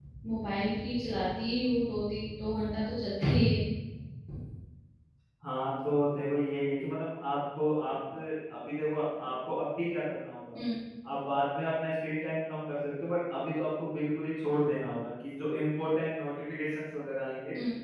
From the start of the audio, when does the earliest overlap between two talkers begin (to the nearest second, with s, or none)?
none